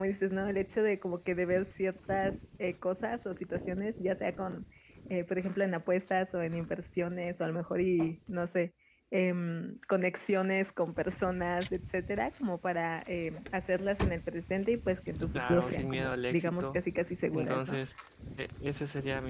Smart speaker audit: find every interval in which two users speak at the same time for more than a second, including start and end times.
15.3-16.8

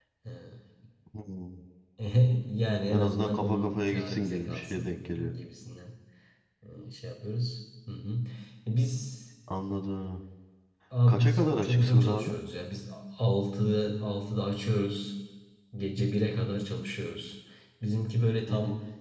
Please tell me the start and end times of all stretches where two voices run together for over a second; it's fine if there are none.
2.9-5.3, 11.1-12.3

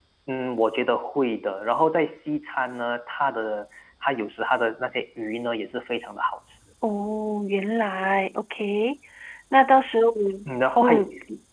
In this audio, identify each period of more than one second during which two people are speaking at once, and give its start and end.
none

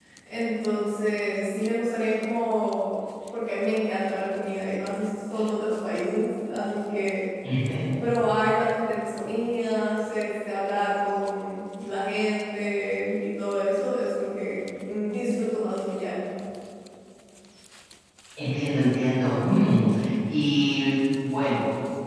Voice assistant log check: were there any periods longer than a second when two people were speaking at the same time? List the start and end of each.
none

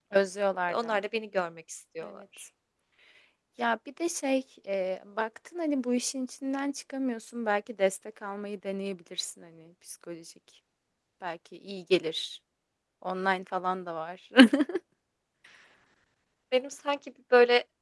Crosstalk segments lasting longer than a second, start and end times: none

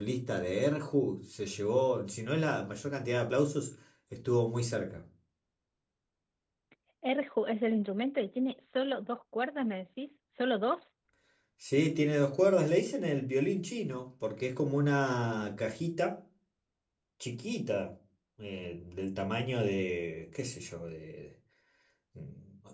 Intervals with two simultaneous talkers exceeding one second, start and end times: none

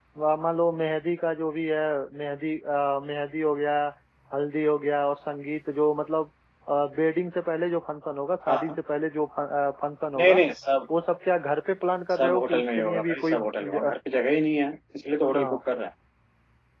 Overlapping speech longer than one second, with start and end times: 12.1-13.9

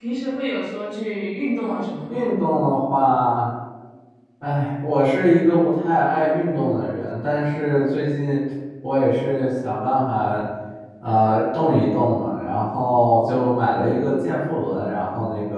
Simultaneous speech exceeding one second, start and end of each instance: none

